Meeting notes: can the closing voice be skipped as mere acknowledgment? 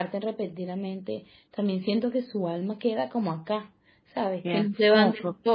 No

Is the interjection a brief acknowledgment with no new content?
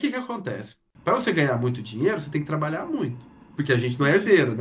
Yes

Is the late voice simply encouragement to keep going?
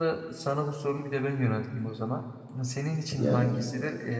Yes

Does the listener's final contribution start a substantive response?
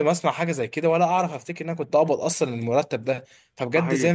No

